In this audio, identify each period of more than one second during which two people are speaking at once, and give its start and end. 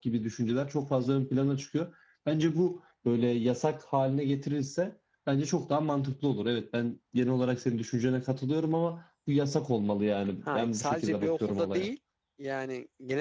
10.5-11.9

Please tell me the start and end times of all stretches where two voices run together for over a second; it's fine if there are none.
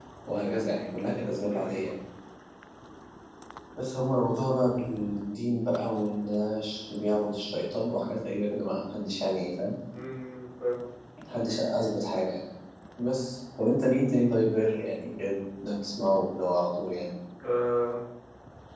none

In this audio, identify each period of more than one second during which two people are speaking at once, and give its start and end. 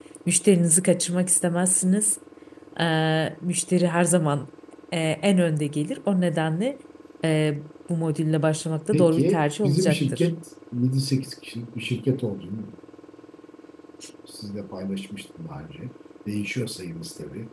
8.9-10.3

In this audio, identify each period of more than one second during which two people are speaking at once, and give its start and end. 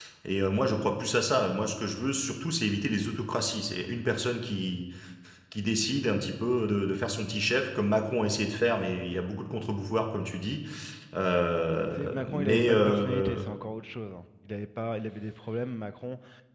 11.9-13.4

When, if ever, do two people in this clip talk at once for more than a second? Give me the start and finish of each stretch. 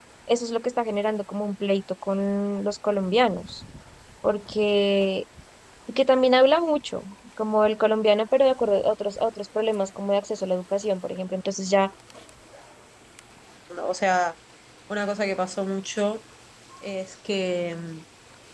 none

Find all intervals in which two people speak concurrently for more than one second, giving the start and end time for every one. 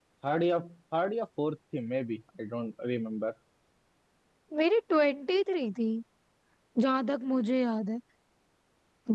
none

